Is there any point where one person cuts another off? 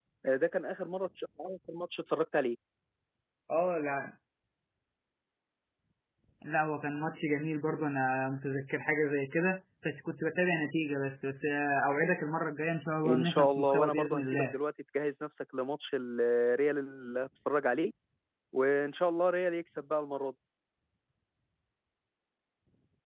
Yes, from 13.0 s

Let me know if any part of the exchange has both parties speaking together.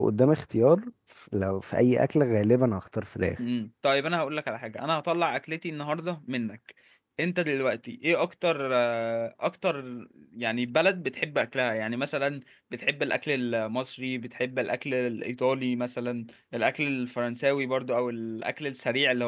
No

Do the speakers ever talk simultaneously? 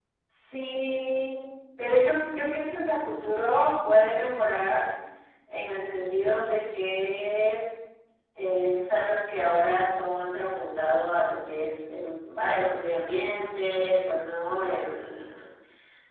No

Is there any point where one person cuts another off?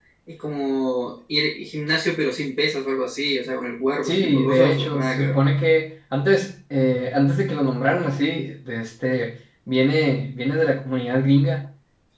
Yes, from 4.0 s

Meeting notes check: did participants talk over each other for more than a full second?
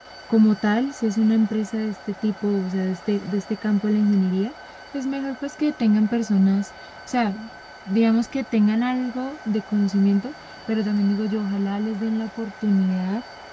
No

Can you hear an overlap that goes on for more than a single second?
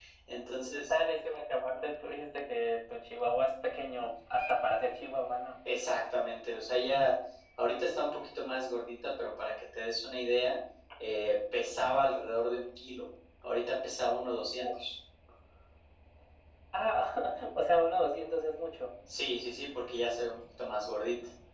No

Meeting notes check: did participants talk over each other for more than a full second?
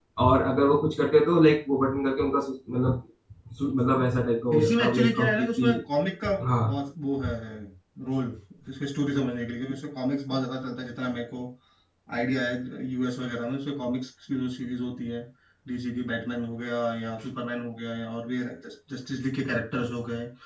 Yes, from 4.5 s

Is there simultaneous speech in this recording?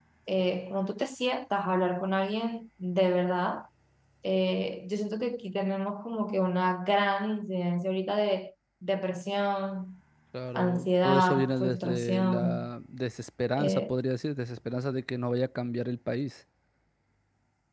Yes, from 10.5 s

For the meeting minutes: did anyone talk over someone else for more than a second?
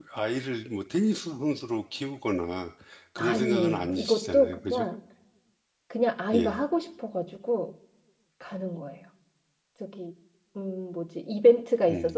Yes, from 3.2 s

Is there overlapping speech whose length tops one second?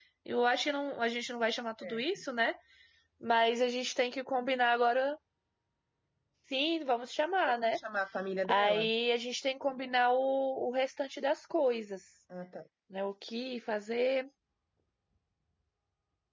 No

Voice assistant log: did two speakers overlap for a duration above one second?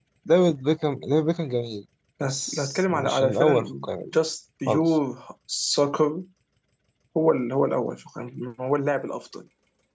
Yes, from 2.2 s

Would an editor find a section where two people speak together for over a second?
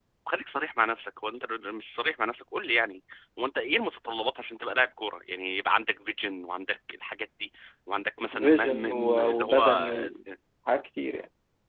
Yes, from 8.3 s

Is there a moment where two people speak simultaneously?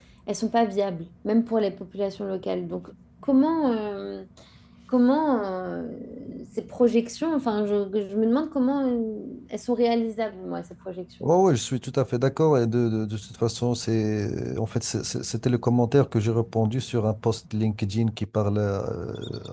No

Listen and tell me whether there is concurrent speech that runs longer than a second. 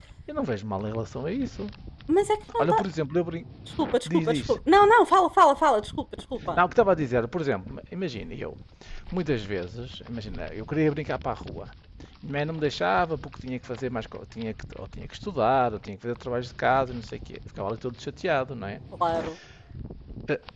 No

